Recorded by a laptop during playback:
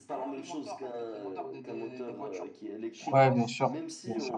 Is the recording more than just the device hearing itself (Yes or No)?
Yes